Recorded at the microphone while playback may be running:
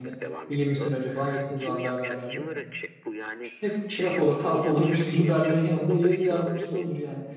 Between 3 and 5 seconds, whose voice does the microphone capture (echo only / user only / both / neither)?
both